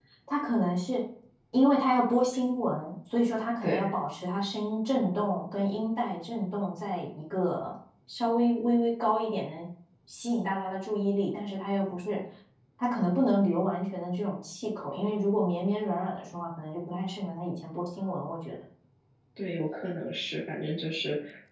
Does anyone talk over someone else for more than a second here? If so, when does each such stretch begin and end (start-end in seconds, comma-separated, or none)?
none